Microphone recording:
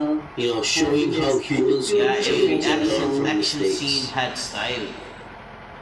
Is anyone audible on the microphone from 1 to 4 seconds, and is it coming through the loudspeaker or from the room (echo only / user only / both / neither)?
both